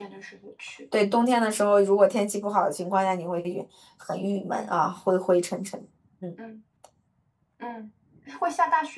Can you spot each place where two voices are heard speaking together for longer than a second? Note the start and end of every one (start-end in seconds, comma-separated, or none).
none